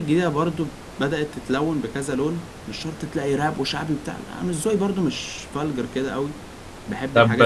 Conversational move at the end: taking over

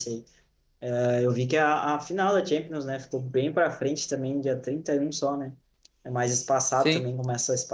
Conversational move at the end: listening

